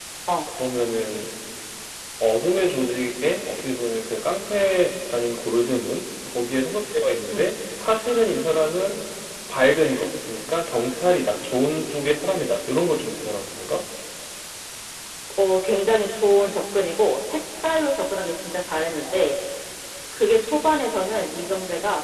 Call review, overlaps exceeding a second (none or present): none